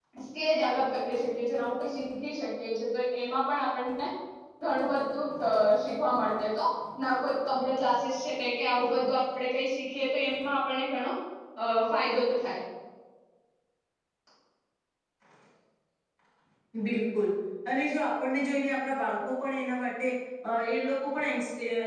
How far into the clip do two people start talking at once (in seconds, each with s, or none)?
none